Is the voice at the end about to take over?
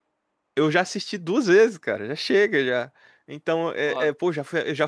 No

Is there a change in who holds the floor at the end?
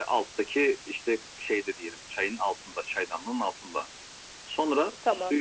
No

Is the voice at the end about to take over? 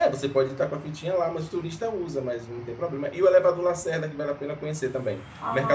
No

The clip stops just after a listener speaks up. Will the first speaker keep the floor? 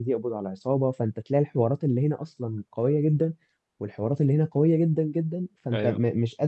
Yes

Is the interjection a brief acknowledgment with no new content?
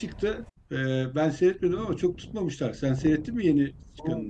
No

